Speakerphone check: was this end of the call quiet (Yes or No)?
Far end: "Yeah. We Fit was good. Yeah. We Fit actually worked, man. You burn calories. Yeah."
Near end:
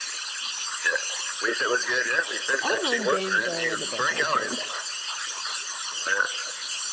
No